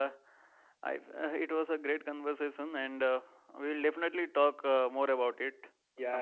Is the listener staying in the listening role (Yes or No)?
No